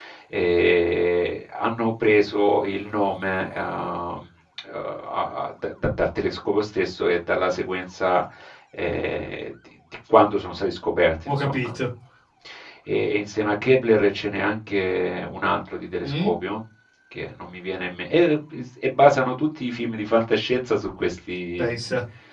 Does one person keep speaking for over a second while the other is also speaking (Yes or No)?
No